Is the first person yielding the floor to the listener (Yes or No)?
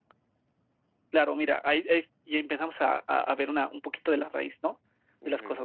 No